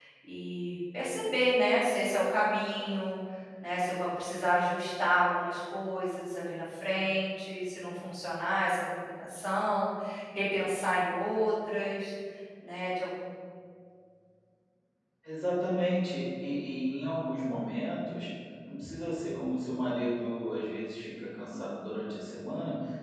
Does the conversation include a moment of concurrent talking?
No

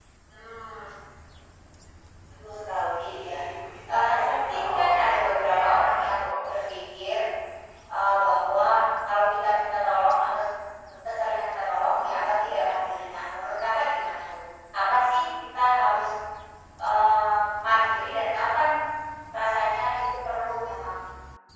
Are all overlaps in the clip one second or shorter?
No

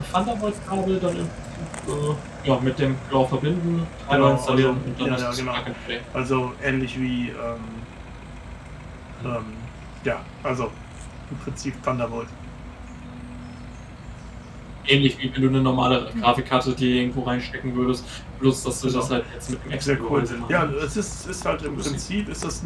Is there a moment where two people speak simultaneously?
Yes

